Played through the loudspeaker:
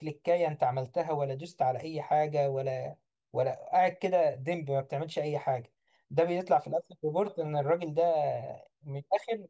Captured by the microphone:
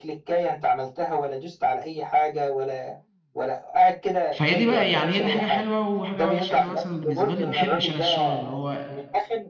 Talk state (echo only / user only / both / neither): both